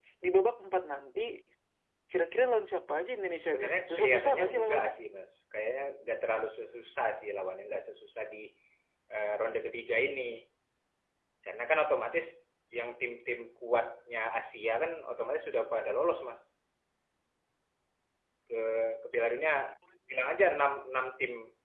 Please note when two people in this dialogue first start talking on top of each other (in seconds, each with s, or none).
3.3 s